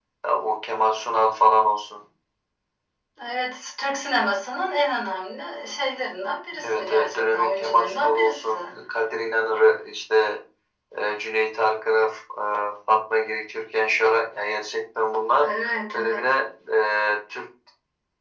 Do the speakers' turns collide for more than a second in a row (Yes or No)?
Yes